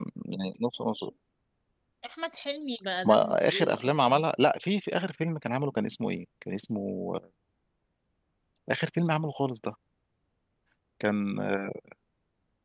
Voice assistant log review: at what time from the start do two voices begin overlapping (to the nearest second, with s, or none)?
3 s